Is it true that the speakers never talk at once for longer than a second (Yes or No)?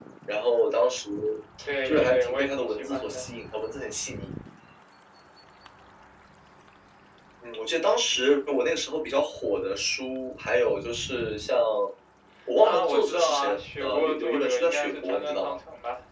No